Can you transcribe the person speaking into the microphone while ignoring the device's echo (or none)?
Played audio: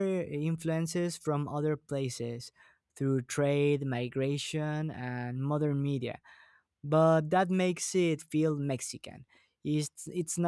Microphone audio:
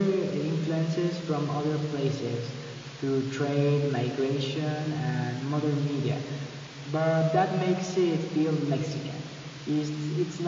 none